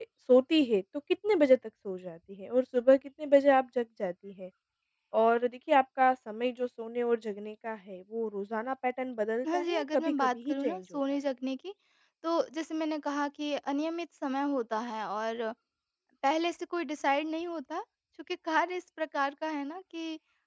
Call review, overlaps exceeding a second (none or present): present